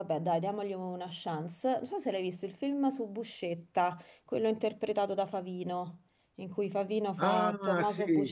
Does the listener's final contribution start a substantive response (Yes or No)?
Yes